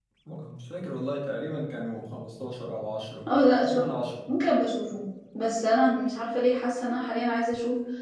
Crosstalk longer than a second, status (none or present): none